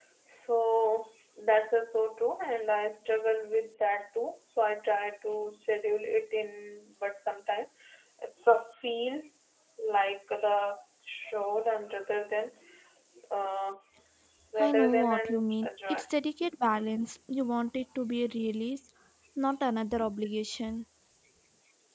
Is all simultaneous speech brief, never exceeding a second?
No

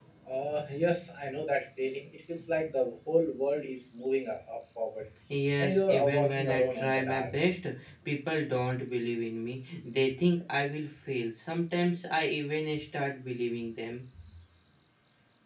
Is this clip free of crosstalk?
No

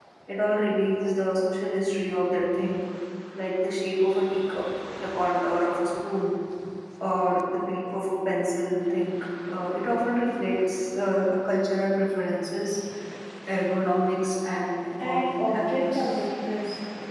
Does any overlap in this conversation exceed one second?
Yes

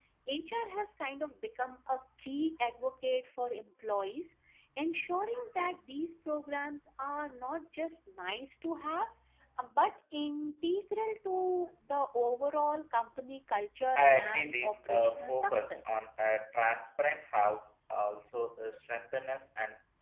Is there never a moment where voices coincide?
No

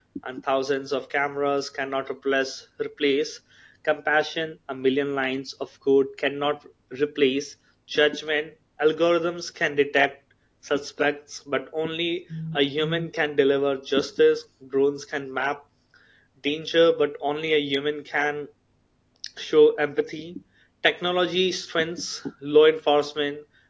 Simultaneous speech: No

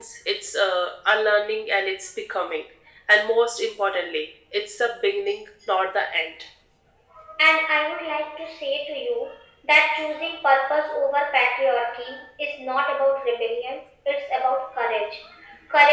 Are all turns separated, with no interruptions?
Yes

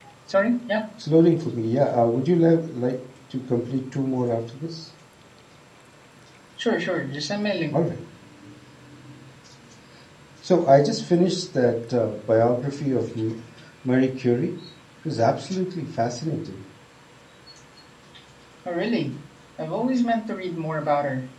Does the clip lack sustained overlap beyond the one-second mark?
Yes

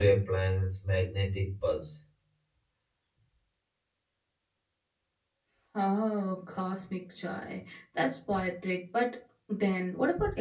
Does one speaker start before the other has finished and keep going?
No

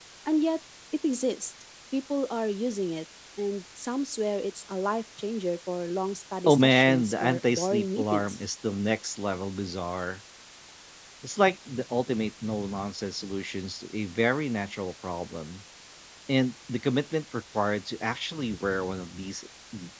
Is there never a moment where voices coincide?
No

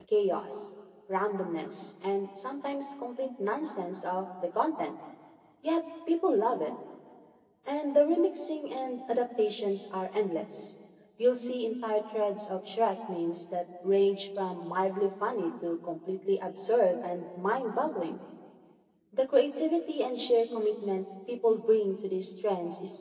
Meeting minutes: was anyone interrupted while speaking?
No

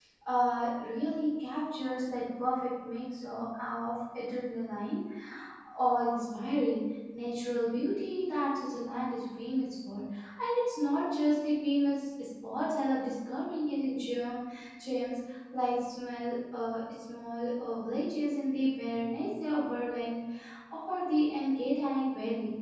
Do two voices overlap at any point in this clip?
No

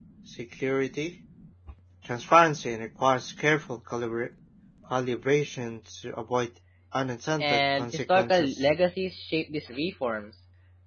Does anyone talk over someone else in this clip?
Yes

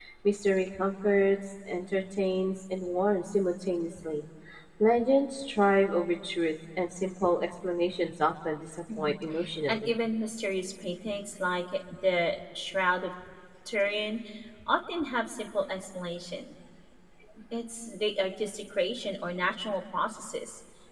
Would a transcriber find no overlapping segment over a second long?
Yes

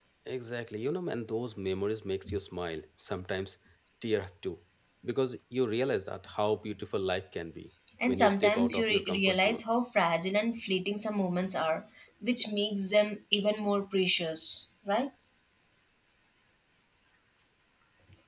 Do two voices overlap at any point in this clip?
Yes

